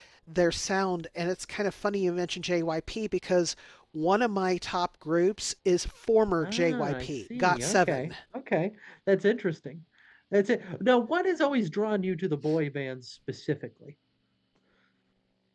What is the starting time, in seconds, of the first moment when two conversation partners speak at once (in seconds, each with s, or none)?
6.4 s